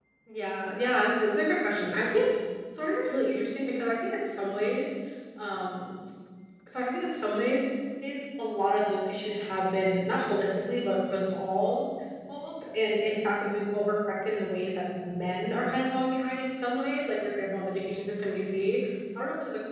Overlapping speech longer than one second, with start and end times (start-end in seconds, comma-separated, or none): none